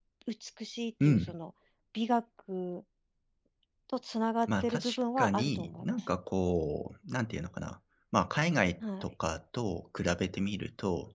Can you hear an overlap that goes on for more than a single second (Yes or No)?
Yes